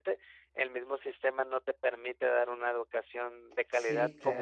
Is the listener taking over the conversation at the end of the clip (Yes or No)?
Yes